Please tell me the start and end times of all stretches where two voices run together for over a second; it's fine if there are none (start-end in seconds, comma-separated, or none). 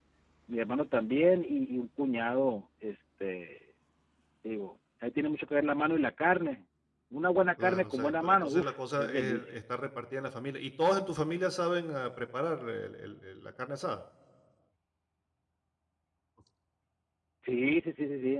7.6-9.6